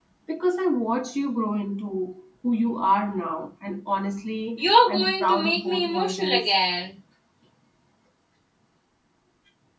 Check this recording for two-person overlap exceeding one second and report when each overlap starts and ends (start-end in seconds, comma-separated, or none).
4.6-6.5